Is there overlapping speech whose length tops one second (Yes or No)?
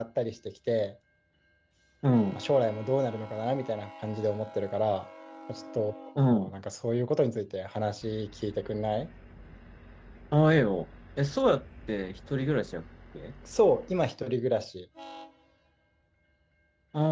No